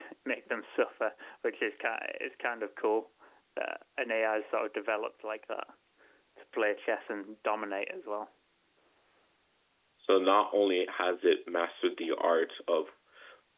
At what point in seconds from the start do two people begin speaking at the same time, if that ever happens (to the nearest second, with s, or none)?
none